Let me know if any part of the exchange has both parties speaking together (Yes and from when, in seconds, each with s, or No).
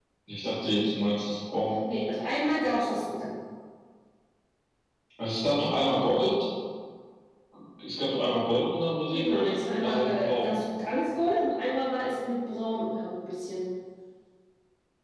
Yes, from 9.1 s